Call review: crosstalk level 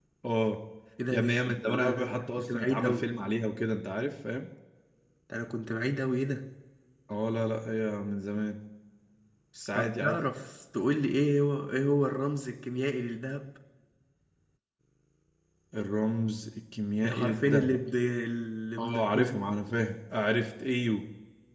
present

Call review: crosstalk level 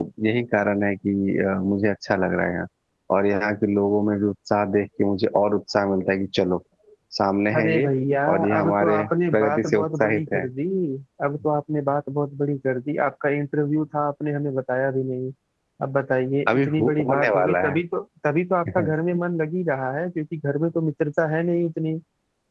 present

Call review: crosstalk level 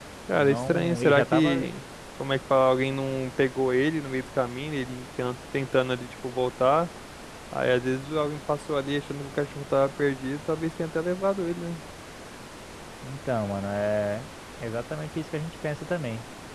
present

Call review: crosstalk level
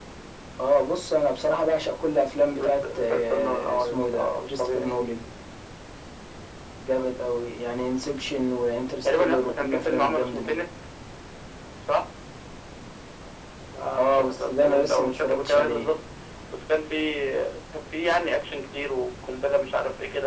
present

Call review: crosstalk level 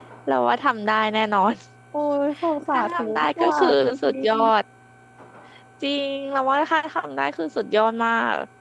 present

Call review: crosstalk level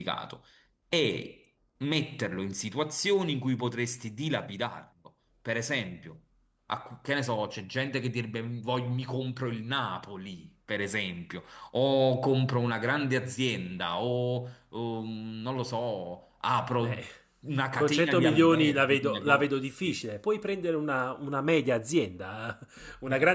present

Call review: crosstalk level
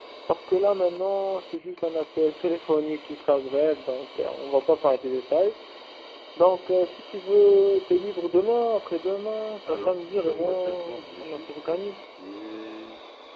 present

